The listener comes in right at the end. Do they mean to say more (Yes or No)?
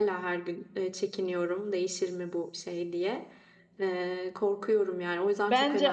Yes